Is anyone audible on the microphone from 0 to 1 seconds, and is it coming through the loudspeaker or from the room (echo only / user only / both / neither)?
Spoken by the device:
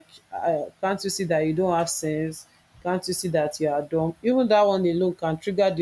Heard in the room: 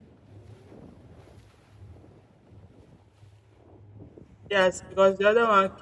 neither